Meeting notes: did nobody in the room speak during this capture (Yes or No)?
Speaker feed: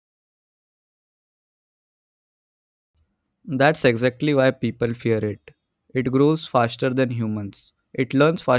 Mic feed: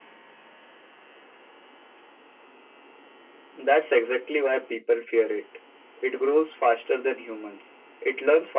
Yes